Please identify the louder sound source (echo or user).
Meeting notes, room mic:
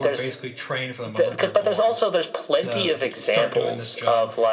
echo